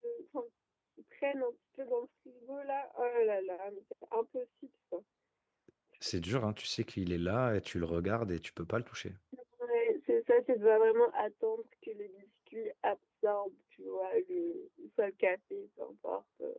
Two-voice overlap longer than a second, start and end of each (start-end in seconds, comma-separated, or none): none